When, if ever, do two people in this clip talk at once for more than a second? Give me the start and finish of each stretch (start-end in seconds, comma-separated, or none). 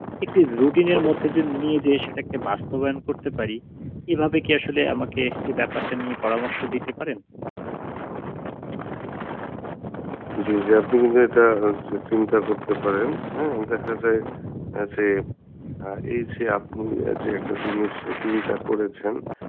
none